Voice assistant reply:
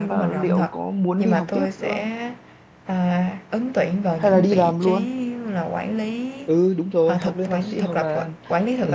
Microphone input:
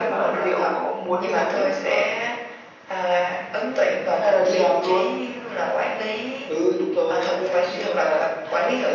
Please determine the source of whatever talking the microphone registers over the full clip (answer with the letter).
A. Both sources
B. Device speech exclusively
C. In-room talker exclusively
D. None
B